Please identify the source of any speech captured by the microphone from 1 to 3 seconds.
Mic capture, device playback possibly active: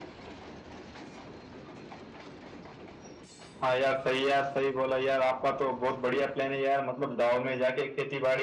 neither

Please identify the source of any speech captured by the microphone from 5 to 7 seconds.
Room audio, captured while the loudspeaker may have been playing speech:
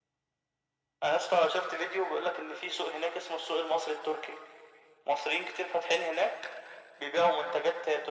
echo only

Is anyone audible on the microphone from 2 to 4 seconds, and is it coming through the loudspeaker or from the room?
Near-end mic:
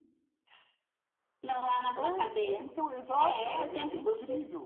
both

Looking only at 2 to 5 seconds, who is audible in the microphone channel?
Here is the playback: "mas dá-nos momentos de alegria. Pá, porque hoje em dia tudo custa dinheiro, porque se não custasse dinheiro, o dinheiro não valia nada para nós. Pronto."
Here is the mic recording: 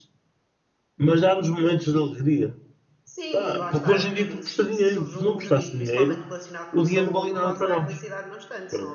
both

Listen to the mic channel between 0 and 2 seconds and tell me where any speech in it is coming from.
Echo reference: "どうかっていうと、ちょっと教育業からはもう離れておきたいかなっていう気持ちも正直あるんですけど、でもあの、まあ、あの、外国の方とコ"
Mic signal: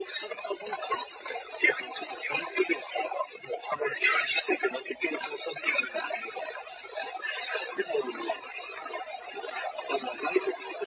echo only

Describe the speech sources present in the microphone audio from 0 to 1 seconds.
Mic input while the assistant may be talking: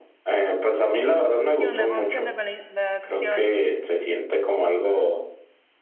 echo only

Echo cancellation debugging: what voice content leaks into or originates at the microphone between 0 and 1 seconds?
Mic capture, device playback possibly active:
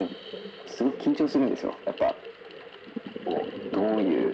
echo only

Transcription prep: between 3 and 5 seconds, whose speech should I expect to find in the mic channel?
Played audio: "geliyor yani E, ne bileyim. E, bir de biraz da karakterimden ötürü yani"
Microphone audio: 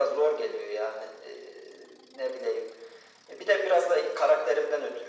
echo only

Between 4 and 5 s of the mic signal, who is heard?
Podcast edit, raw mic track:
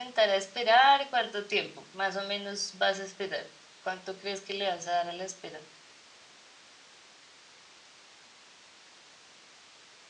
user only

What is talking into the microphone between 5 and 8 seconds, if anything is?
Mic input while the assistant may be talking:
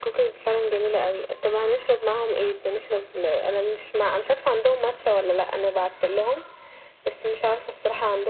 echo only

